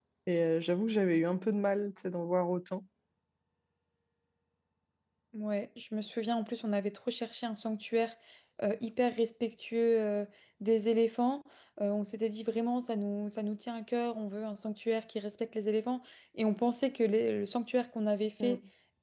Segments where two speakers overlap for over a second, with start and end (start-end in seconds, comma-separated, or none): none